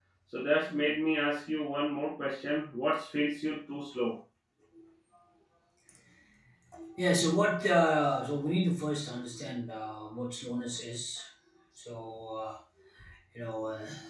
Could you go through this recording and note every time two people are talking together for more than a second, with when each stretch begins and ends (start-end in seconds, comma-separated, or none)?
none